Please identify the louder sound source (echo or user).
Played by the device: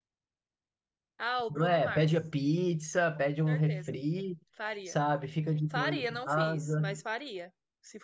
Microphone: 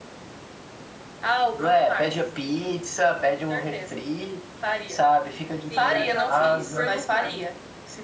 echo